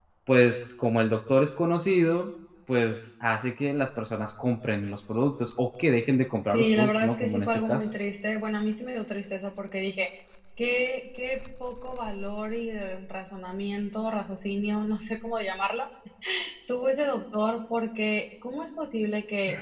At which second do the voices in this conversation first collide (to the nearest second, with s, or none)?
6 s